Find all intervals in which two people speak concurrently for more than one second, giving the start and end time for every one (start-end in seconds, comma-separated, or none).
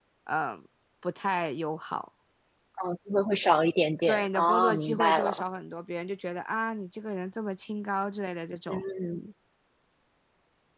4.0-5.4